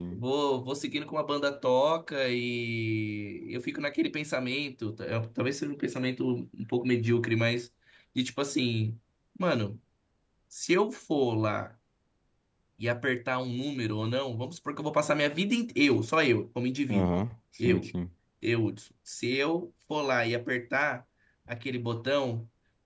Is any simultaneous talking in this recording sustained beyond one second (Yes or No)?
No